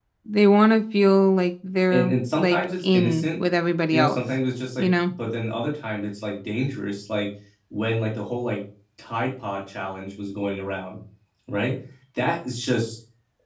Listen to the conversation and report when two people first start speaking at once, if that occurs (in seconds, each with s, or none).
1.9 s